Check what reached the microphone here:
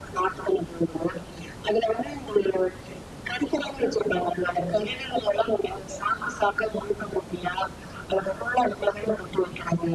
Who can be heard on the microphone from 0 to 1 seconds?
echo only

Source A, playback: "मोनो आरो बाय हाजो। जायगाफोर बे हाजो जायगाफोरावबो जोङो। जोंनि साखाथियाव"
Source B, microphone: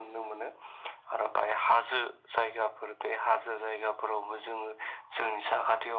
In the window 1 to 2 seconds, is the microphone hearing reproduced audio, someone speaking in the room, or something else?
echo only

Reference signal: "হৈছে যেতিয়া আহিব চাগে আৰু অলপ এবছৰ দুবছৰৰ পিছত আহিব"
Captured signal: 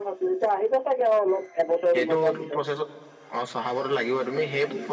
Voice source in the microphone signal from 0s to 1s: echo only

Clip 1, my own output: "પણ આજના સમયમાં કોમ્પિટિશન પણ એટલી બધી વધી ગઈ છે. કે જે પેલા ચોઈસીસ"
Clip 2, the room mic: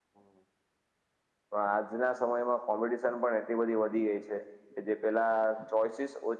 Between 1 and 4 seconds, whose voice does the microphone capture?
echo only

